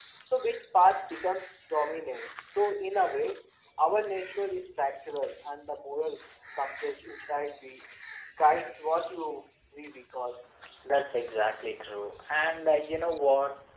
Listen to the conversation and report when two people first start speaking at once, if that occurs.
none

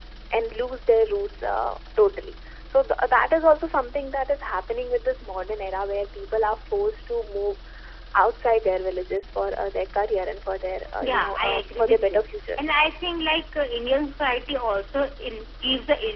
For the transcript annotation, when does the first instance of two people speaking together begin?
11.0 s

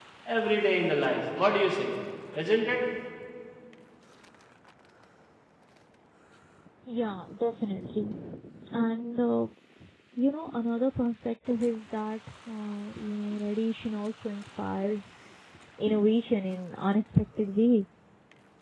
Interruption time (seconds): none

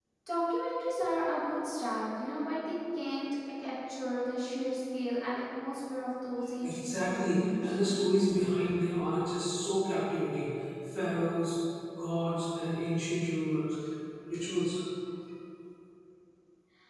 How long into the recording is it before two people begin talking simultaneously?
6.6 s

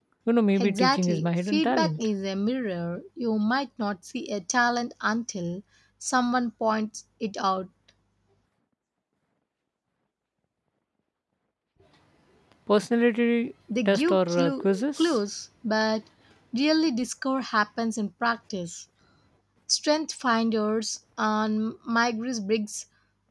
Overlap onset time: 0.6 s

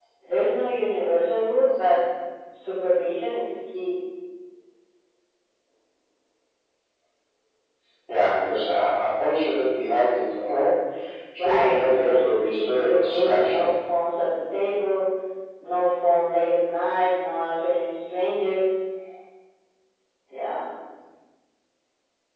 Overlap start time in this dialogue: 11.4 s

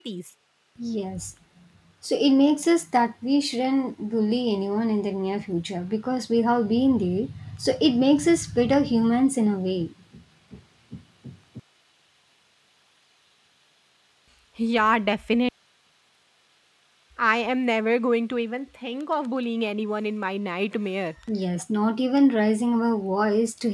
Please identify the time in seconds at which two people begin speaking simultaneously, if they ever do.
none

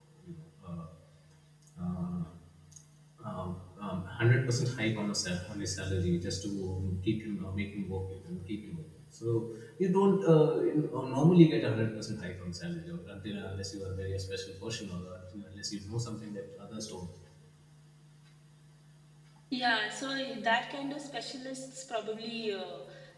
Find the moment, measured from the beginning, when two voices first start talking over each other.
none

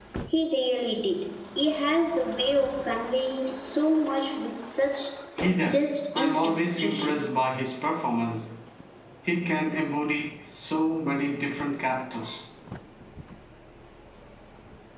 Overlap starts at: 5.6 s

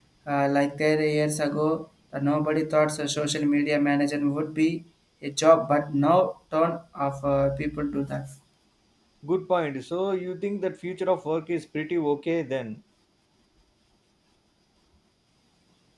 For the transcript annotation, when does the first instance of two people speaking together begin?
none

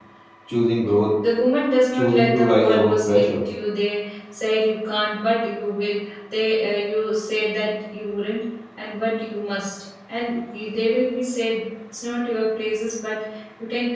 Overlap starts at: 1.9 s

